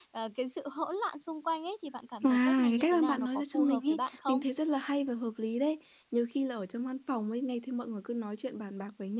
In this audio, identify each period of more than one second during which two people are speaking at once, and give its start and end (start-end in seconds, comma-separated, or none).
2.2-4.4